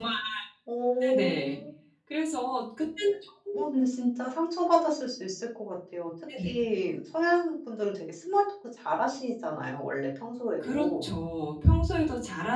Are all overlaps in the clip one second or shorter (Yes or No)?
Yes